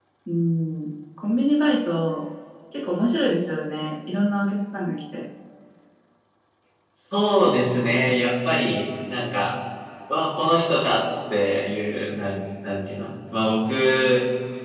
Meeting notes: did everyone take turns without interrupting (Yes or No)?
Yes